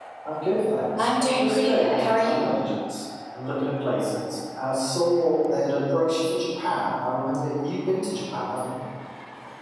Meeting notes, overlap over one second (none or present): present